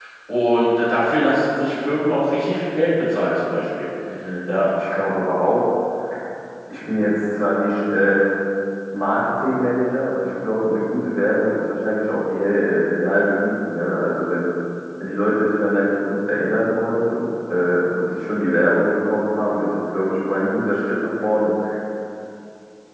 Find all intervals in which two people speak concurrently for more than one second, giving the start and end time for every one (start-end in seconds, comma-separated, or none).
none